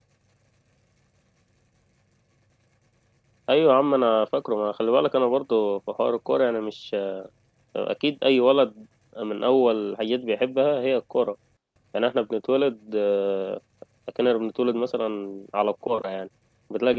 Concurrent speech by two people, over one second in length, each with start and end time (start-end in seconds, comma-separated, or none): none